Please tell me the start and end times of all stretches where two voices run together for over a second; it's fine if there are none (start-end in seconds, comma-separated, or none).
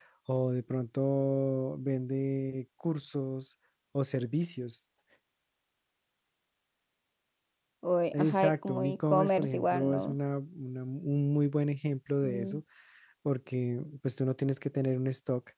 8.1-10.2